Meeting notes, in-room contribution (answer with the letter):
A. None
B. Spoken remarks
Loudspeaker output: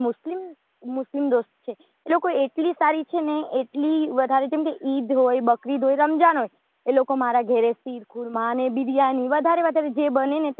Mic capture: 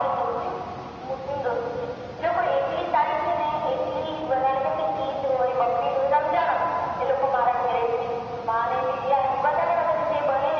A